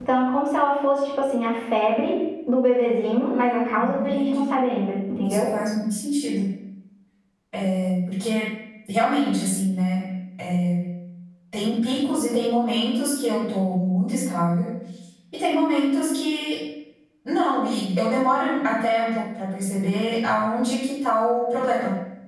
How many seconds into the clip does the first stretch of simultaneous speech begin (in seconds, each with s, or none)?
3.2 s